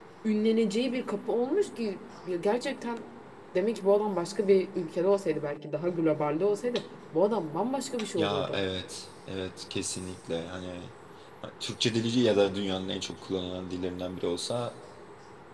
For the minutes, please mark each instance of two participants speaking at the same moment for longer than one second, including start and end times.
none

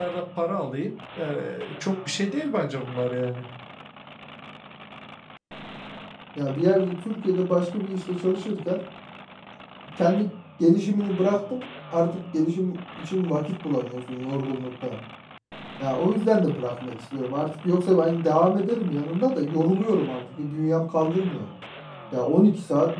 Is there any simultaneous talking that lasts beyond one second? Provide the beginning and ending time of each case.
none

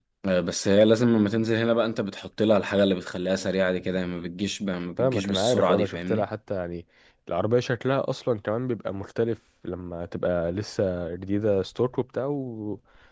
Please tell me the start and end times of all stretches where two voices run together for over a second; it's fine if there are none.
5.0-6.3

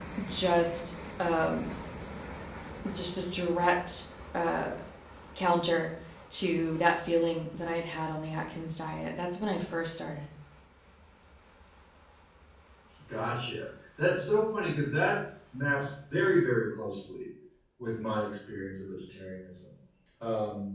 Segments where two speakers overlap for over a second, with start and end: none

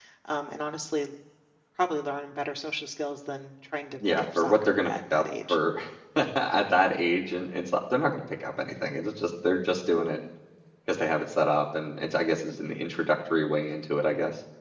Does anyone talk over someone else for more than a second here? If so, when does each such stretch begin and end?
4.1-5.6

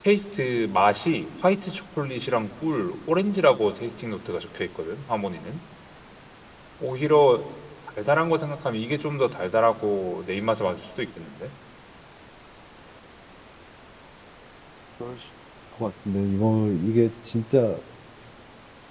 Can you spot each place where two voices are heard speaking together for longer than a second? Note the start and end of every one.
none

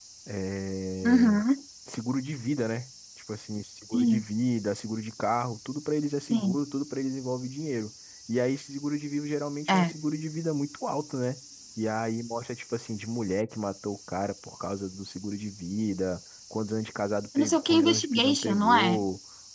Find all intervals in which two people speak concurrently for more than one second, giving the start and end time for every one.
17.4-19.0

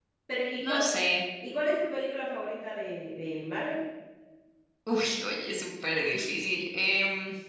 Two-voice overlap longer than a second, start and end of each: none

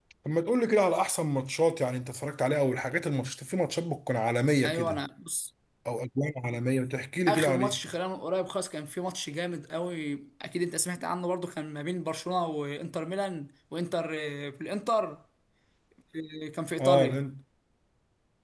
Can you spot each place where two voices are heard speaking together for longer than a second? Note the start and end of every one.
none

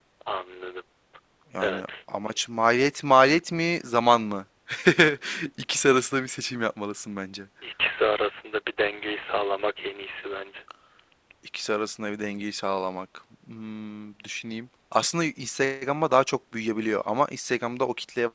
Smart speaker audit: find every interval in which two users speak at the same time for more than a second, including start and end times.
none

